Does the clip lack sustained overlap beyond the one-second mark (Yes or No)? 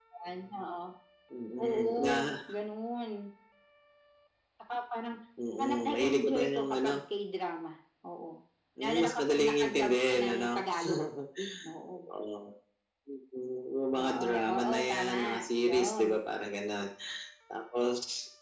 No